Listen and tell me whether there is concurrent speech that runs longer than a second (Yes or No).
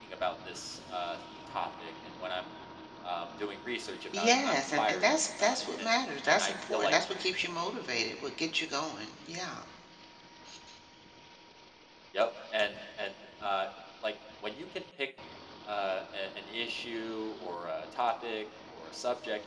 Yes